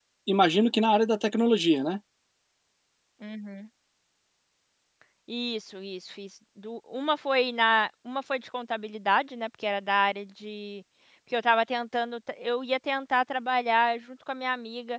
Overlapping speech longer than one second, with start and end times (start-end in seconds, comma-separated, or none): none